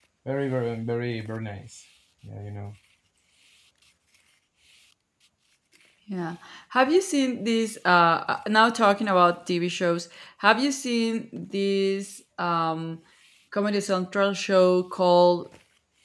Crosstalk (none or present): none